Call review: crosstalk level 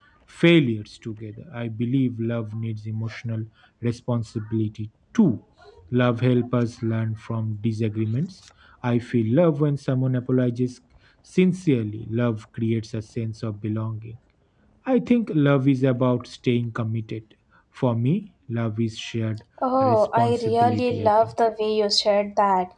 present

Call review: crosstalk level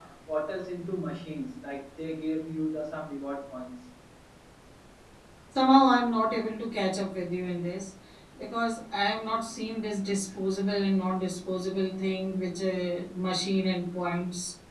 none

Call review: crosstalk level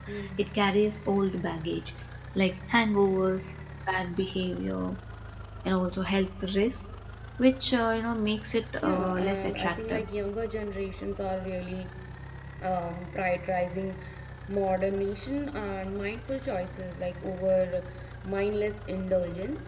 present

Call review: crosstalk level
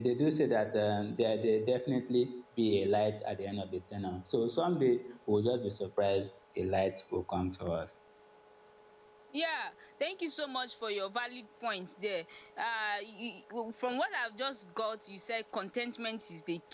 none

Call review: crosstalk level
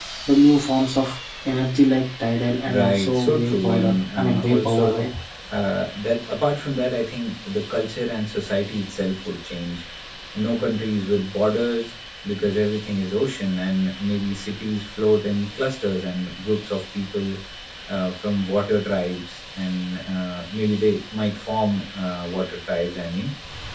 present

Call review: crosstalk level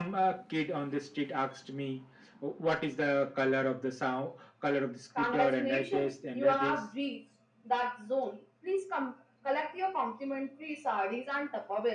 present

